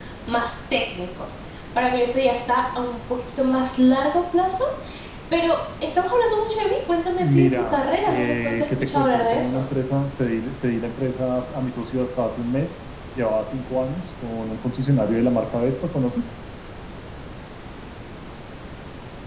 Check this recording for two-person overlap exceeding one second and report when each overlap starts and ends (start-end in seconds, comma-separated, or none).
7.2-9.6